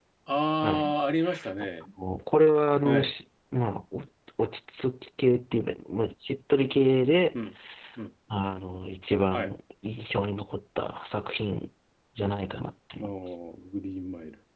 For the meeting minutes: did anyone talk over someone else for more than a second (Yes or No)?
No